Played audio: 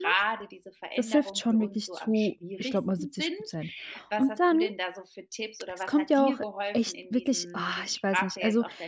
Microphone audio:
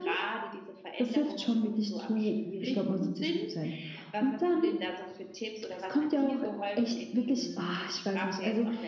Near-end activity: none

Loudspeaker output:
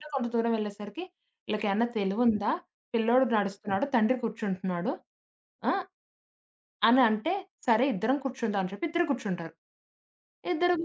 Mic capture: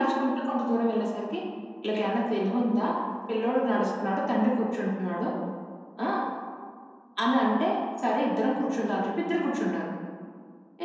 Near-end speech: none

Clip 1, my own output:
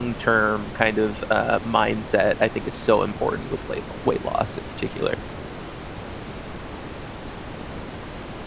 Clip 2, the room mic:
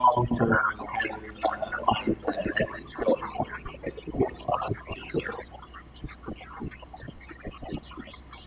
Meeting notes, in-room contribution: none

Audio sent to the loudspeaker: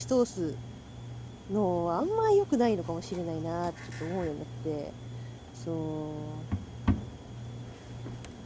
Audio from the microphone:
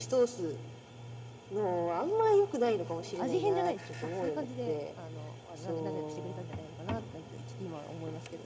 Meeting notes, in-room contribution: present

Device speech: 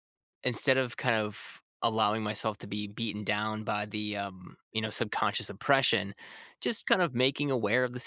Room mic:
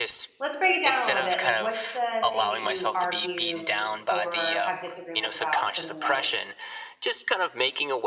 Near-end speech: present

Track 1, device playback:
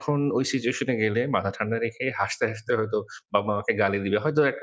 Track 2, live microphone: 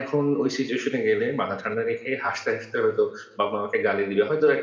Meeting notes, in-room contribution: none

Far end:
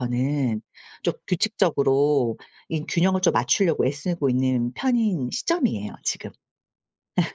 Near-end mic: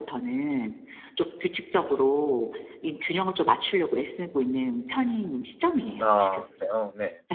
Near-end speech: present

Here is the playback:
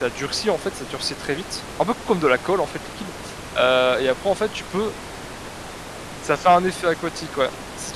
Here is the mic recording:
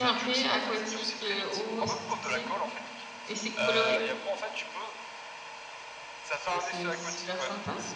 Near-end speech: present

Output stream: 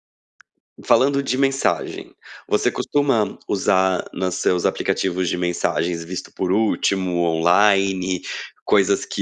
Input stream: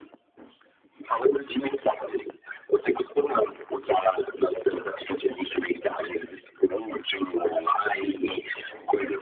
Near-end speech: none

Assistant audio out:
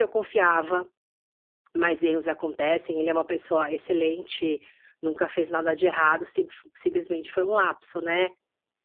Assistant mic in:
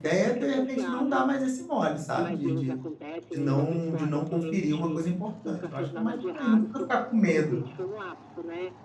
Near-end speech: present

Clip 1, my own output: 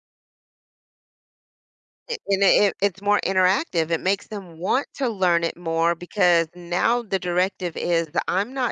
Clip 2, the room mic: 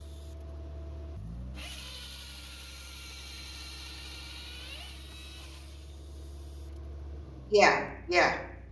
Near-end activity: present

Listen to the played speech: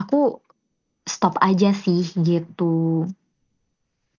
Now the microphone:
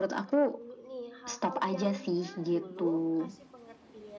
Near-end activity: present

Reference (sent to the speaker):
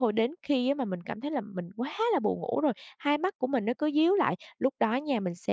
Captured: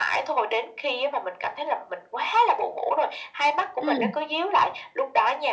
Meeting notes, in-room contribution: present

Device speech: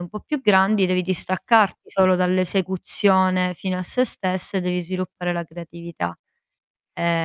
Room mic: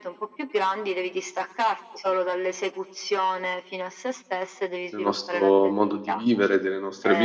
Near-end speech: present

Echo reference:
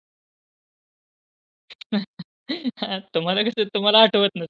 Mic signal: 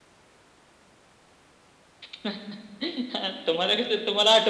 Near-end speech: none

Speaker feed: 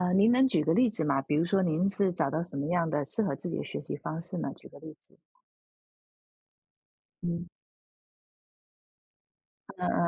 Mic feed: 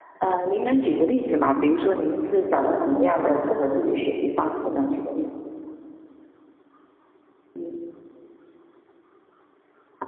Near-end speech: none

